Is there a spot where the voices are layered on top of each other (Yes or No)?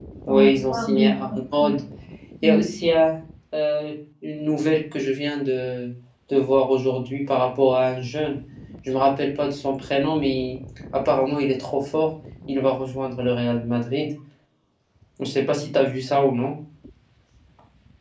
Yes